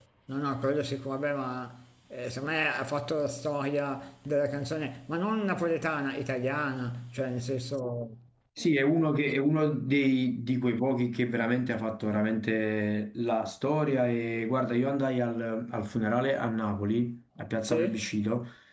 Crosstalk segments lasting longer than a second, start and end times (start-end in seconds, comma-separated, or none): none